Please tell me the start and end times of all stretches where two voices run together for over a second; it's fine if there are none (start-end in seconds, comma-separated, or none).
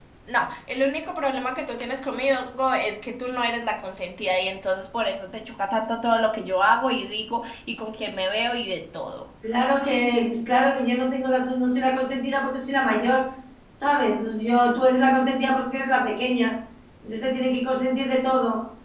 none